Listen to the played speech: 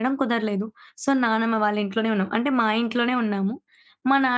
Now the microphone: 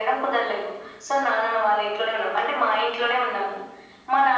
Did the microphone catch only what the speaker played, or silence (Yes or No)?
Yes